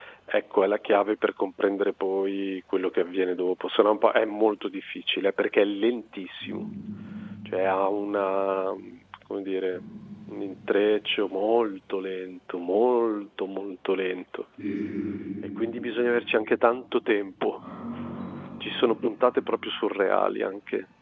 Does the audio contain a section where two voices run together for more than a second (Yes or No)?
No